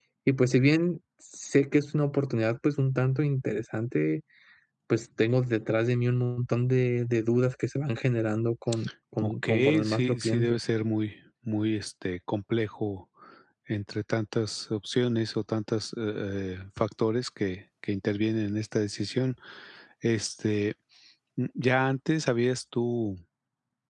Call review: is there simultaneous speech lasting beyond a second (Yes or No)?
Yes